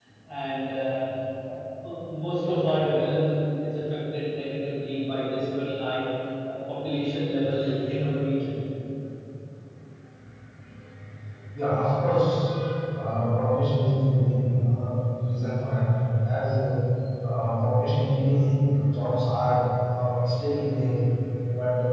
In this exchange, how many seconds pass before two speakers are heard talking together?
none

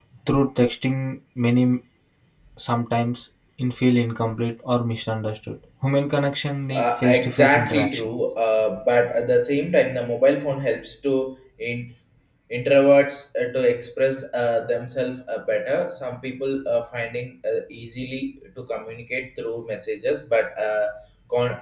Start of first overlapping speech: 7 s

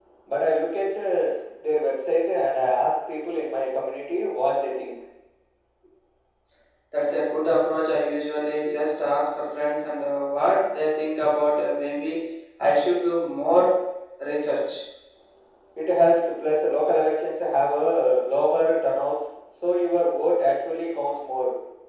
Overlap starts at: none

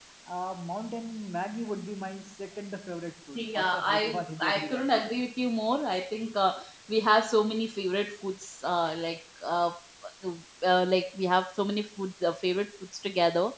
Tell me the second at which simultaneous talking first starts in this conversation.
3 s

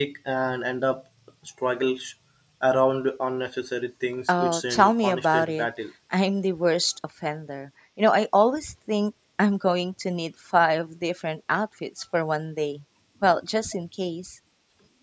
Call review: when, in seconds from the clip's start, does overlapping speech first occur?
4 s

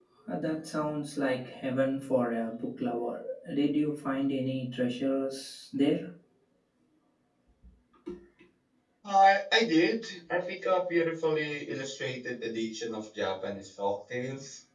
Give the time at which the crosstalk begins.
none

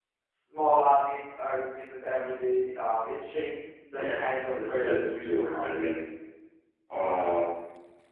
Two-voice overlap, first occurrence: 4 s

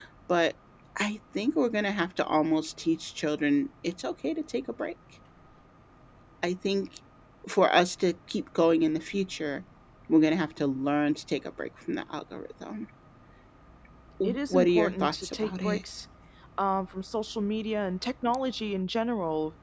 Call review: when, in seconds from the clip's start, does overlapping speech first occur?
14 s

